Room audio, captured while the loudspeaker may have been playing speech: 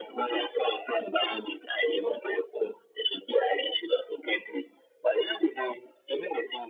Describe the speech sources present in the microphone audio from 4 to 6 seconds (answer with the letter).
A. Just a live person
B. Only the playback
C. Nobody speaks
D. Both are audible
B